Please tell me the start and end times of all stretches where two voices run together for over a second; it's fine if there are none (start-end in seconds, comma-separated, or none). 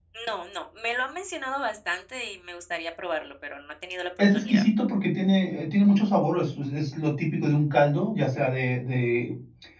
none